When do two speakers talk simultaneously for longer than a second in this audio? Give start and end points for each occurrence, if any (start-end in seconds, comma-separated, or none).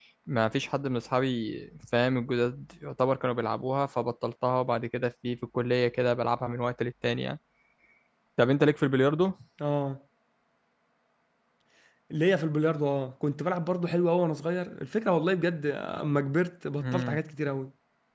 none